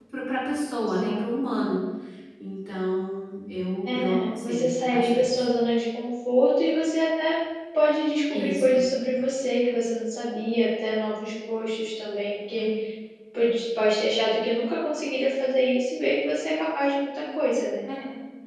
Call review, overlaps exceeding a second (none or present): present